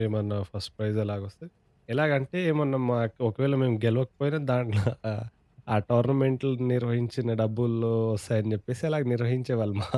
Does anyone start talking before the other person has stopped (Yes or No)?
No